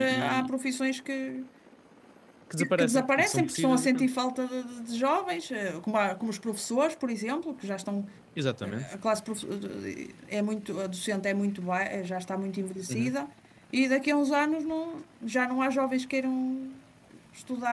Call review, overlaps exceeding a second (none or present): present